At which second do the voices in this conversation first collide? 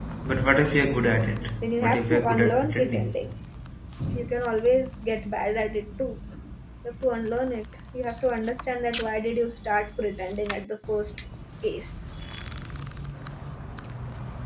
2 s

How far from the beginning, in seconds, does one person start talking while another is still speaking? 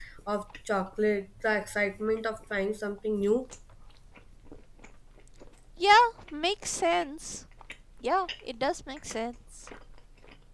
none

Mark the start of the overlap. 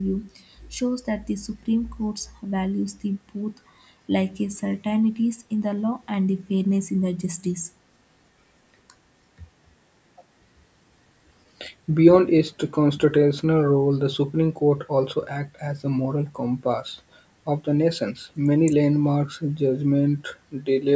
none

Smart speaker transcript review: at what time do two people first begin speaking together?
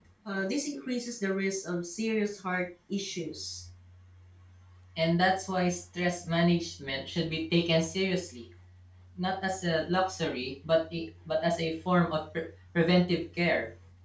none

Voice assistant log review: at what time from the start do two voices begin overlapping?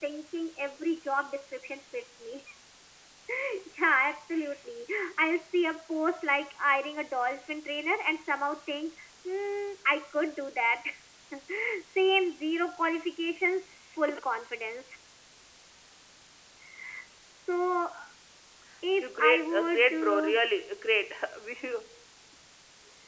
19 s

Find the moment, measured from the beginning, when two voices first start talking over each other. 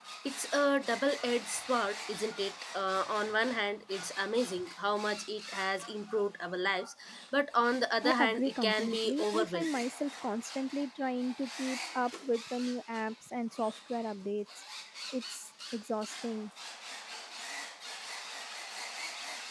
8 s

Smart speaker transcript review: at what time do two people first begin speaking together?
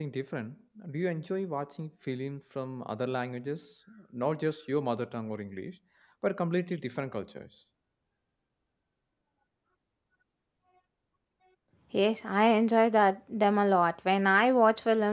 none

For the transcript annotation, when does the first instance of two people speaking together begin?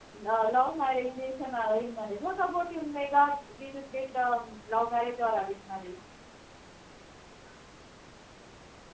none

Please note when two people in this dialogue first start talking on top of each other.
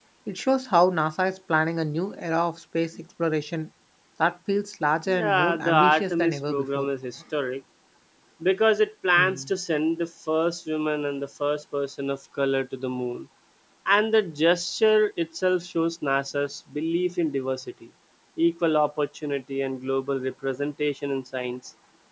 5 s

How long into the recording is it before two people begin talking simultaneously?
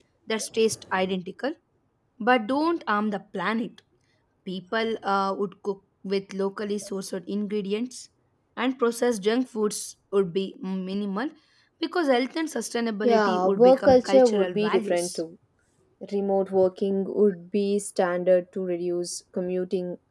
13 s

